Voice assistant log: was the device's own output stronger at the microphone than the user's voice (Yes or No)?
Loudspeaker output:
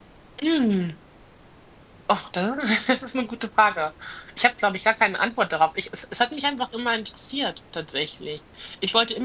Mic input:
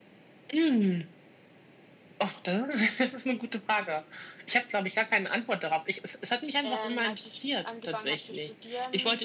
Yes